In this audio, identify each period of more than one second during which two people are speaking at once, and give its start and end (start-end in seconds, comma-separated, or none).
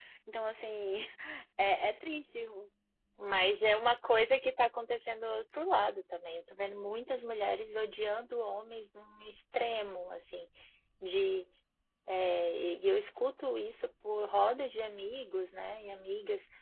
none